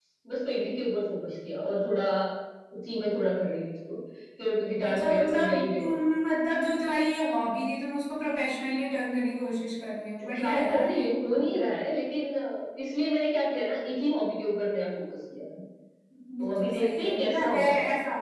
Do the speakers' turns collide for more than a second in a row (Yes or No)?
Yes